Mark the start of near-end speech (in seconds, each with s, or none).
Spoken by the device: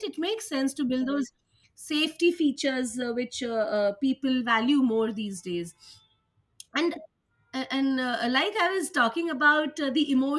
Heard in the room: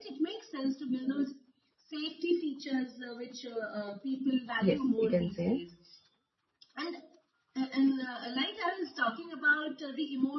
4.6 s